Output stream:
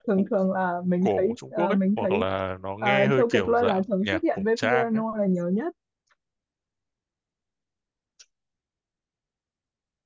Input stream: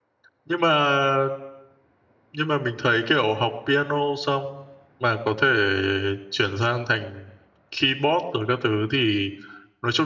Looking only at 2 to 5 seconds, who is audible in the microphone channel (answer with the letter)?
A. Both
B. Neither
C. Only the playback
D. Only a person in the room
D